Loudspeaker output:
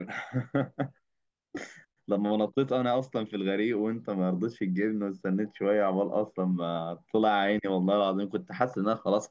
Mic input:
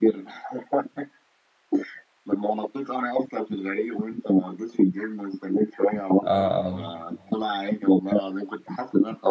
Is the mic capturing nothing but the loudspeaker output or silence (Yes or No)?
No